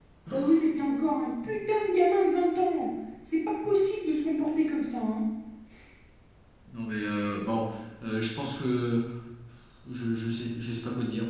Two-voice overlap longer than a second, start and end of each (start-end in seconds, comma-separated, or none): none